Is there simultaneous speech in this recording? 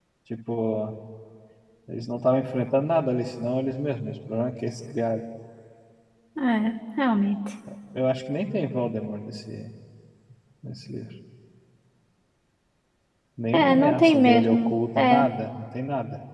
Yes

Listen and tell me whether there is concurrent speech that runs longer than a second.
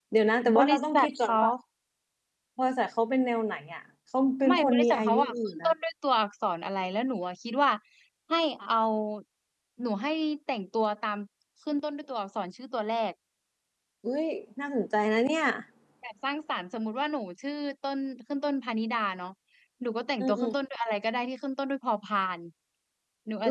Yes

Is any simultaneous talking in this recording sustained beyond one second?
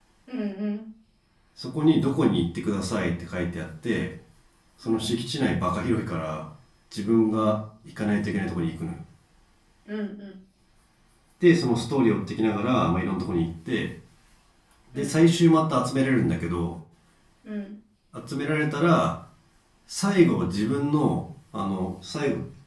No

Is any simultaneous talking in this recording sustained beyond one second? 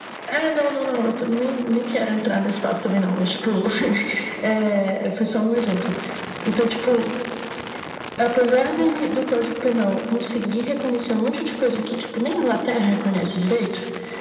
No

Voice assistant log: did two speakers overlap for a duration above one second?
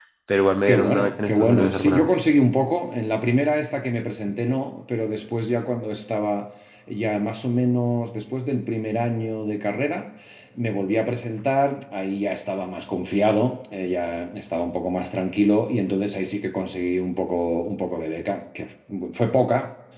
Yes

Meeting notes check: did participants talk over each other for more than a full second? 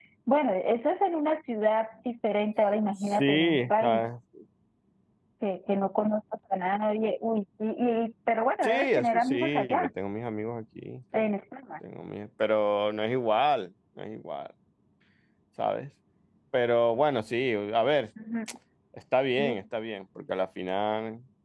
Yes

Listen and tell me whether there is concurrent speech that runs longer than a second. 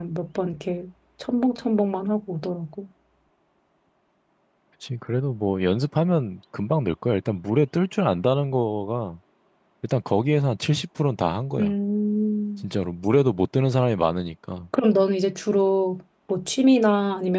No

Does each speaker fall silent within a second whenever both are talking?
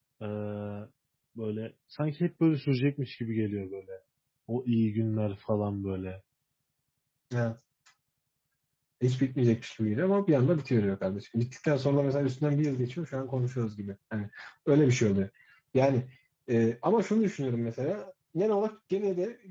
Yes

